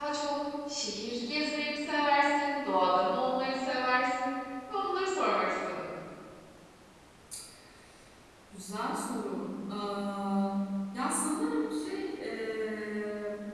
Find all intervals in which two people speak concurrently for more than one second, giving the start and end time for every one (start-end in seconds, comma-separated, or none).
none